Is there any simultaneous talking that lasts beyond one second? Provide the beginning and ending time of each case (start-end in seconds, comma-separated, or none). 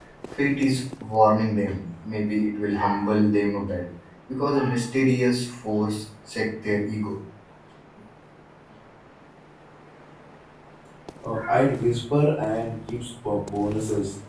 none